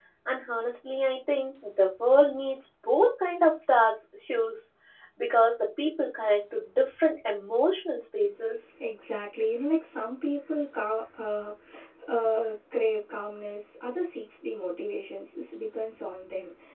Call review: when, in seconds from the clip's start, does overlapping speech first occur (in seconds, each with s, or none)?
none